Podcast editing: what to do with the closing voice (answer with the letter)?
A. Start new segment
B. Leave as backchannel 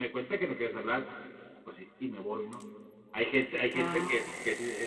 B